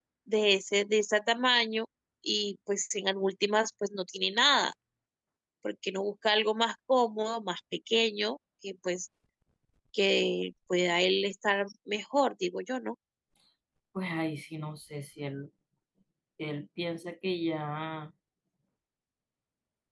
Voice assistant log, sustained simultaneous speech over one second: none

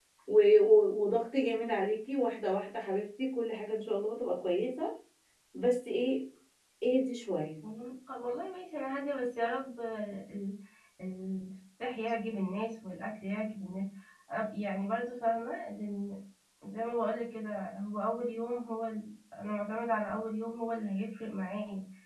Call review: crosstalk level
none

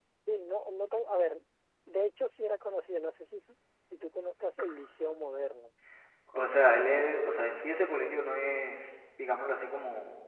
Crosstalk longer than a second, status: none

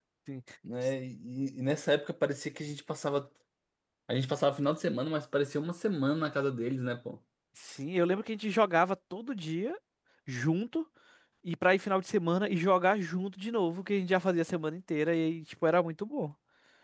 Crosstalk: none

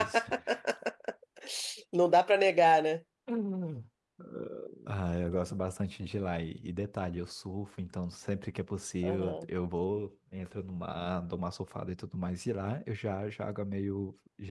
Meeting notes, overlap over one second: none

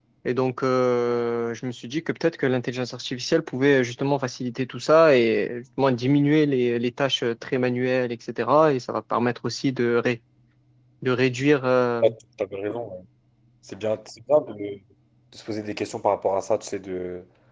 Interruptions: none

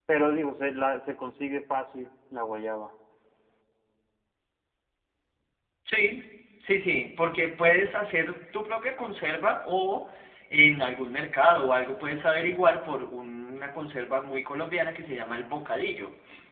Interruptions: none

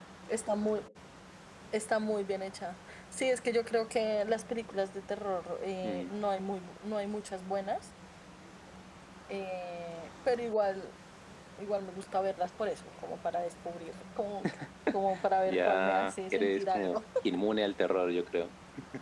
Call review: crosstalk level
present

